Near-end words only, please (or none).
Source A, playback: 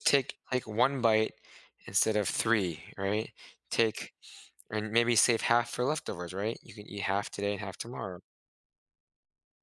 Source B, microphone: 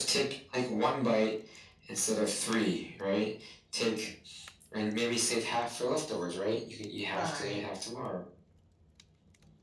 Right.